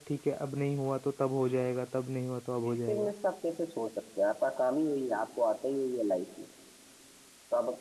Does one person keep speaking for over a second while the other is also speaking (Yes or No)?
No